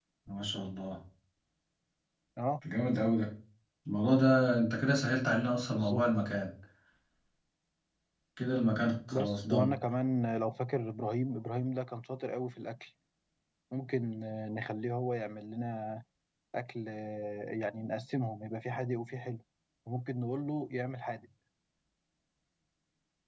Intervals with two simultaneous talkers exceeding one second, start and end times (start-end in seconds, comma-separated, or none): none